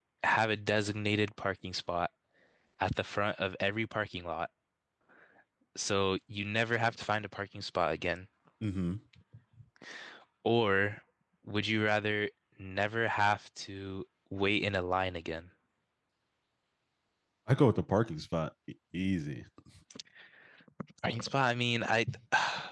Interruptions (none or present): none